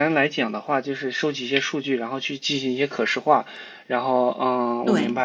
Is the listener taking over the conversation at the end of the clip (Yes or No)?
No